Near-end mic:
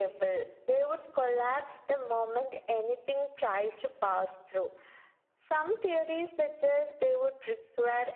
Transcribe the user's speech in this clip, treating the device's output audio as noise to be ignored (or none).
none